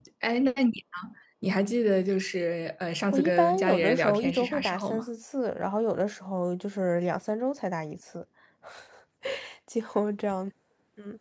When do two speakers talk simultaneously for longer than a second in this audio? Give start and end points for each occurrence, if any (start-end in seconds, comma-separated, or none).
3.1-5.0